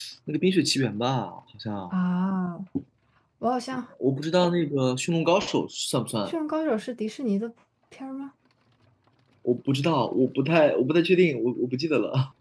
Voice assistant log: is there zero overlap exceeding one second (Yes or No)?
Yes